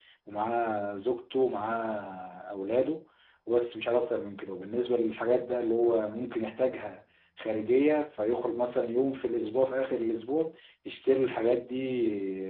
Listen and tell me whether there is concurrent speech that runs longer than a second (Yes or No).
No